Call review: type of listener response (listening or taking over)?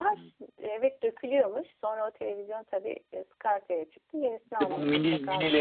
taking over